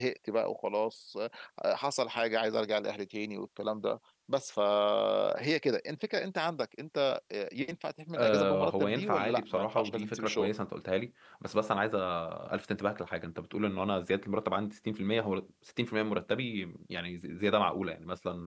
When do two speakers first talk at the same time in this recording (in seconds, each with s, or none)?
8.2 s